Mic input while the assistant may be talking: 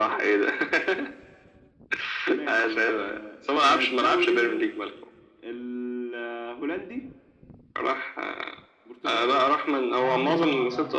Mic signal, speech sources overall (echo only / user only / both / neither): both